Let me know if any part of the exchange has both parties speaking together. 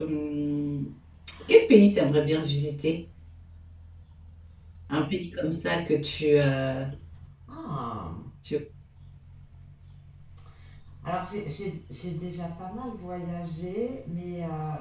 No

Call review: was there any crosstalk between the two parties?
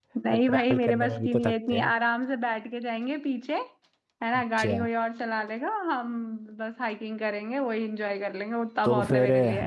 Yes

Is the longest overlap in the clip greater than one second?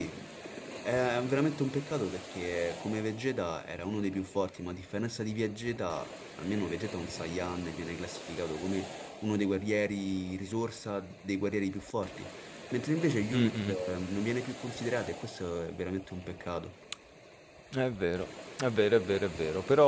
No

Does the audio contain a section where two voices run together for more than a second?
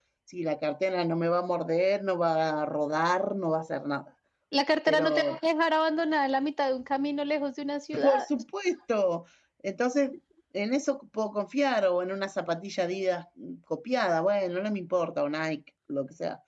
No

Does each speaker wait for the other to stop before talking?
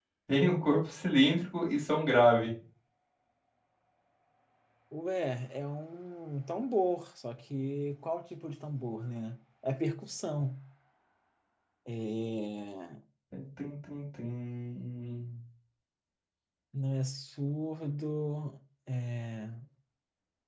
Yes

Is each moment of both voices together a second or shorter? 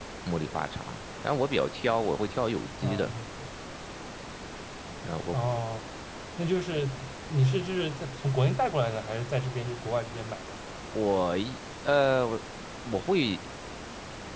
Yes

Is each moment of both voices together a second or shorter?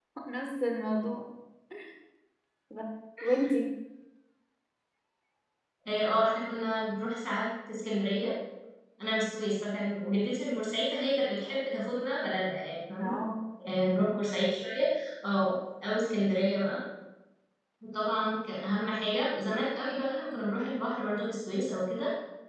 Yes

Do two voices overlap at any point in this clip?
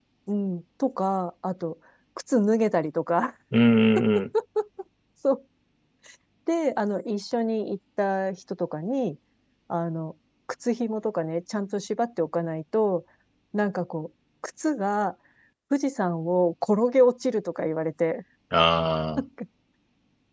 No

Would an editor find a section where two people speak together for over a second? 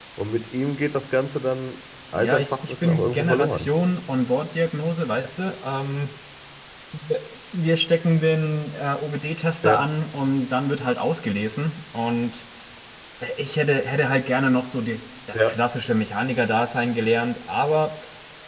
Yes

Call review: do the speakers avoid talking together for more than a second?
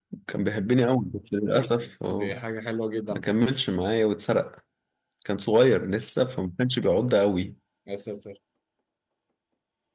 Yes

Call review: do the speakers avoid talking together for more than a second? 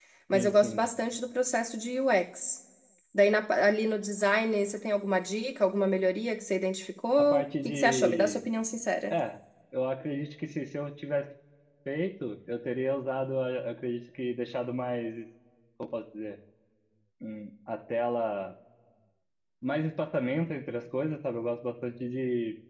No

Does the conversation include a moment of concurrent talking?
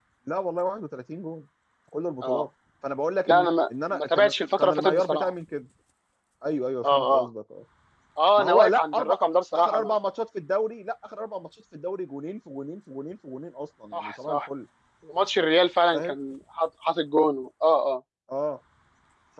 Yes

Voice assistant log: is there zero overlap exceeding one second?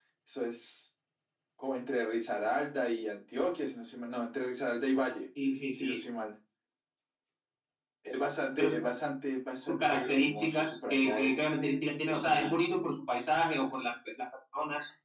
No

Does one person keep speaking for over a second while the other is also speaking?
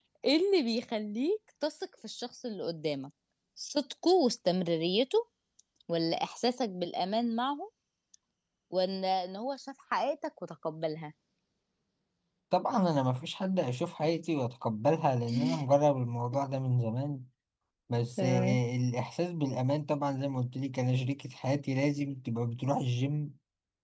No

